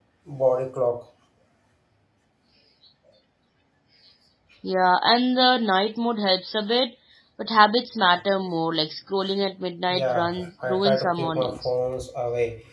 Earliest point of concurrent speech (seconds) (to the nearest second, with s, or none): 10 s